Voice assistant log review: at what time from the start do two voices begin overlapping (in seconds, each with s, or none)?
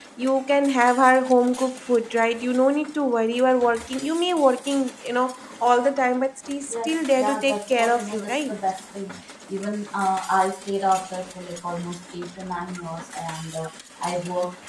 6.7 s